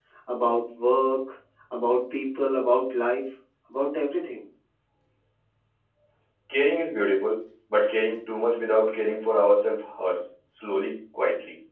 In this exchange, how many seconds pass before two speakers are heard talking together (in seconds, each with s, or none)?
none